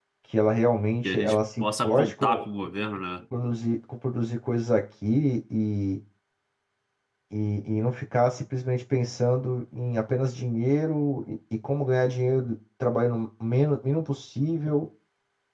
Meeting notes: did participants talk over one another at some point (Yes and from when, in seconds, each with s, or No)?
Yes, from 1.0 s